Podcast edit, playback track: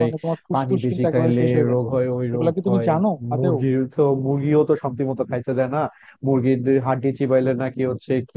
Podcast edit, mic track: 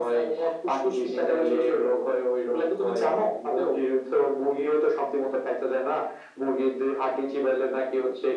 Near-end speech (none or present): none